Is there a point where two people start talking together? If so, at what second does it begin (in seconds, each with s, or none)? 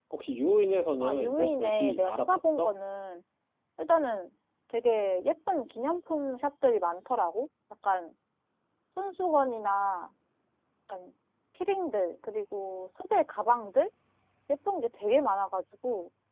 1.0 s